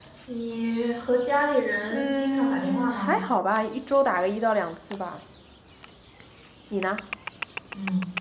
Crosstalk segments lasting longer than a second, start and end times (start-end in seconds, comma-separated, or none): 1.9-3.2